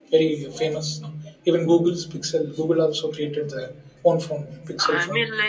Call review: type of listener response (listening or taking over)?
taking over